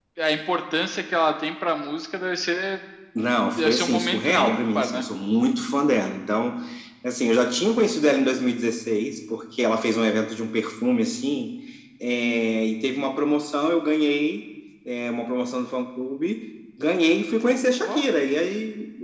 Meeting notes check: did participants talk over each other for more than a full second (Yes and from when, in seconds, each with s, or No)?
Yes, from 3.6 s